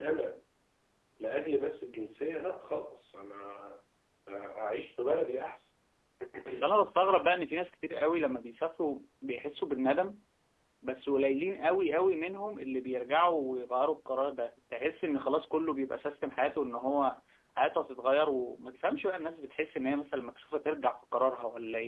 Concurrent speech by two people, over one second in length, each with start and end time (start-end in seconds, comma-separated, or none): none